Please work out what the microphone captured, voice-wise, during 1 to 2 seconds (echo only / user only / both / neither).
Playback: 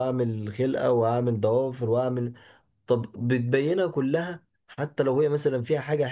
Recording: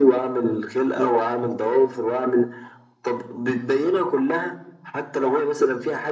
echo only